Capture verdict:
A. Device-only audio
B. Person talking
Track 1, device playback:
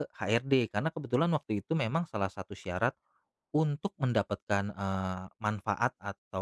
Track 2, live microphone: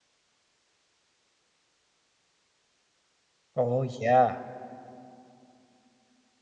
B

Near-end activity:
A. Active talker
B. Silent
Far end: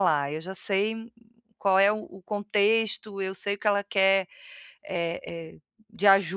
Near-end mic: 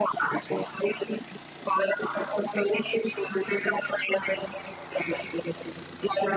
B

